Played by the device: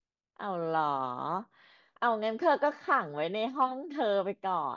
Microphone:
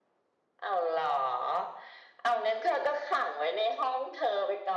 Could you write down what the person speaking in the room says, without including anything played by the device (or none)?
none